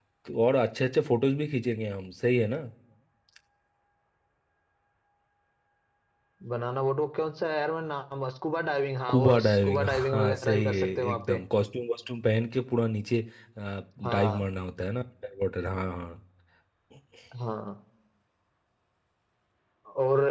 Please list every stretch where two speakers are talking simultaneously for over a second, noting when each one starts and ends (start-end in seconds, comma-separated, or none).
9.1-11.4